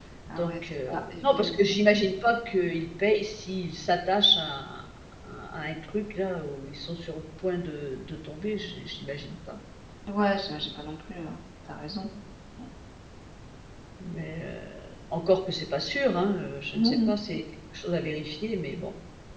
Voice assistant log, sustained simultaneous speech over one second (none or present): present